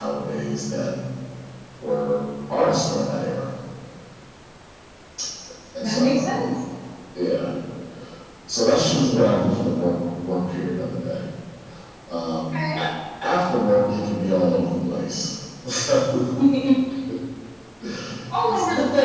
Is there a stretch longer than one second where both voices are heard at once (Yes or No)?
No